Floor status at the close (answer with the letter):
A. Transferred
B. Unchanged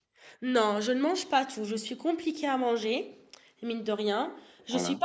B